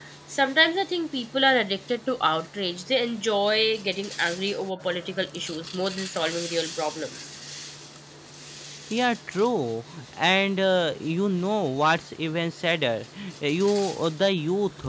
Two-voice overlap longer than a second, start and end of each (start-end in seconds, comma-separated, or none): none